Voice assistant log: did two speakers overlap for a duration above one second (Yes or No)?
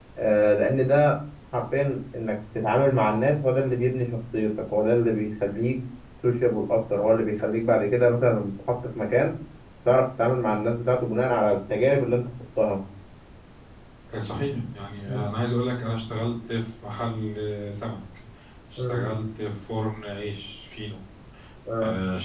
No